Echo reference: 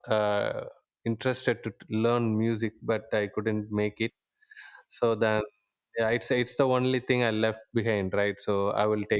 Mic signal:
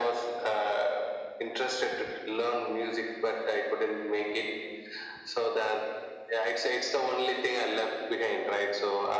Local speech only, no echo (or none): none